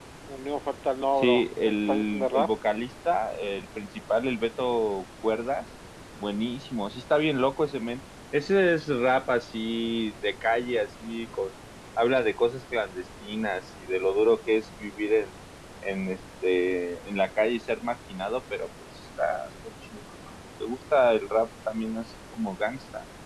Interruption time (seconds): 1.2 s

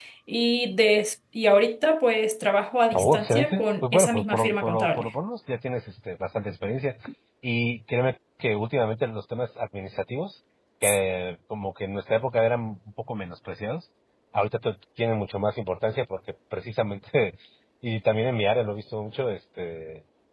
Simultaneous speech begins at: 2.9 s

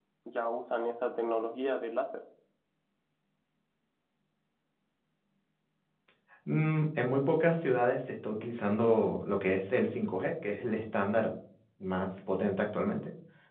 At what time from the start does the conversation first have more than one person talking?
none

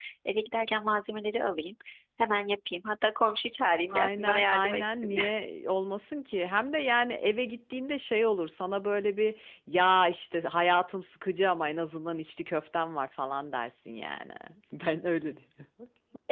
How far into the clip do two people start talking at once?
3.9 s

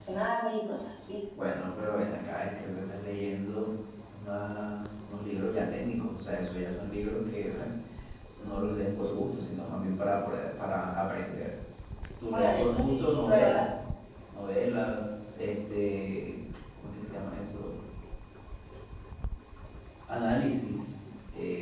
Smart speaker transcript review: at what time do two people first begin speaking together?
12.3 s

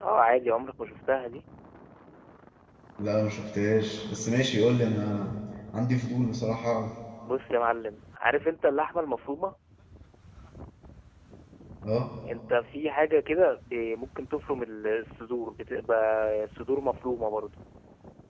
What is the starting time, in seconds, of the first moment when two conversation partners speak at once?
none

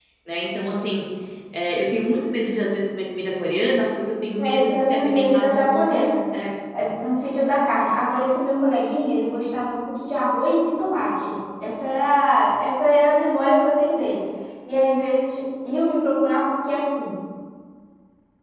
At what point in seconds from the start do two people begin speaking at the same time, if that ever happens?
4.4 s

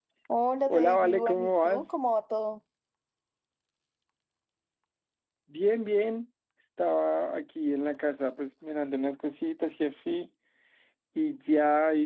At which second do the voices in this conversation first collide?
0.7 s

